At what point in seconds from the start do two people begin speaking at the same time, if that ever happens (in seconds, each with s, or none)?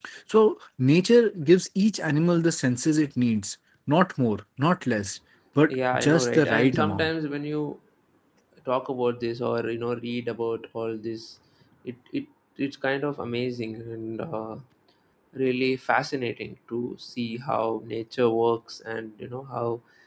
5.7 s